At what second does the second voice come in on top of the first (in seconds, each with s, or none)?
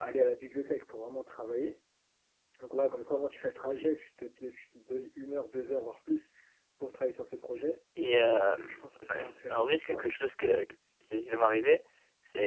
8.7 s